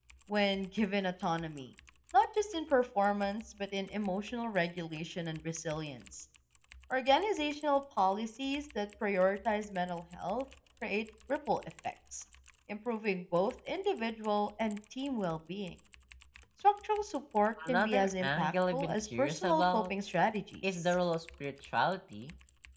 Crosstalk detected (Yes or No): Yes